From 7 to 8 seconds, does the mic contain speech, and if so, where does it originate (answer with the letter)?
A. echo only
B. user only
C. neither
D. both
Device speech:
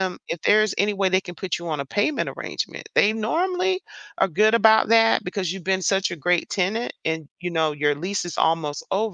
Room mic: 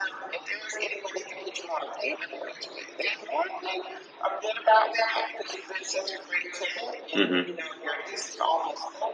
D